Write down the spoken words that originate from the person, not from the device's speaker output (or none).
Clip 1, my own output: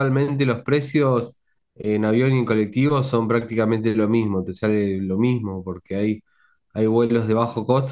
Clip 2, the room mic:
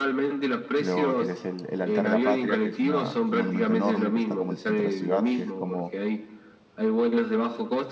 Luego tienes el, el Altar de la Patria, que es, una, es un monumento enorme que está como en el centro de la ciudad, que es como